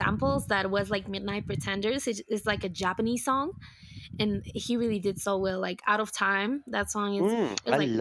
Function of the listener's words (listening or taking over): taking over